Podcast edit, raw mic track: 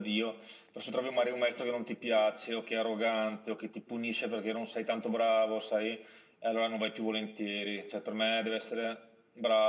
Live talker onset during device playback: none

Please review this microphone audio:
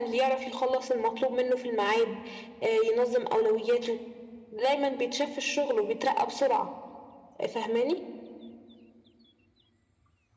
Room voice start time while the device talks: none

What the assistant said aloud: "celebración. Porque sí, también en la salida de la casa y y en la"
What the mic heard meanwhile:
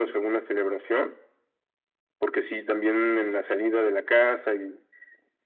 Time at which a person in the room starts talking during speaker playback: none

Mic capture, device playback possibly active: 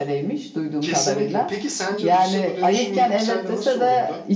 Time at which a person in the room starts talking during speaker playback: 1 s

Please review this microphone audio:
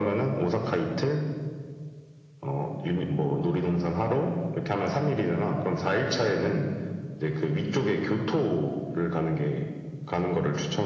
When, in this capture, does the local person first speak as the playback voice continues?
none

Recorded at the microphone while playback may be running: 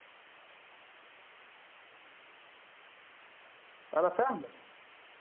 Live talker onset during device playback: 4 s

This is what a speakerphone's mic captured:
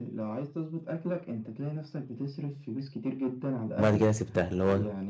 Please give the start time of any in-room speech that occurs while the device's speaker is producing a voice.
4 s

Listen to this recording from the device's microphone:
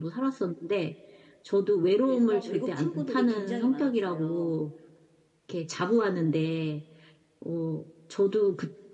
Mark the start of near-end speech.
2 s

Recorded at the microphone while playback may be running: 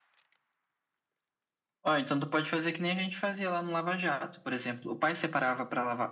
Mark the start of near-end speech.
none

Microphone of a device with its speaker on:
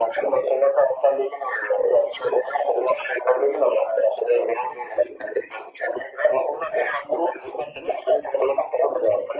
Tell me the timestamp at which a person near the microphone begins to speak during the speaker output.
none

